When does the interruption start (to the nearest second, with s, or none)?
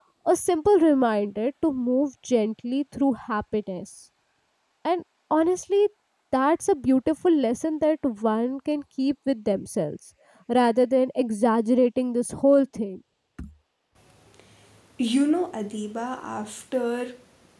none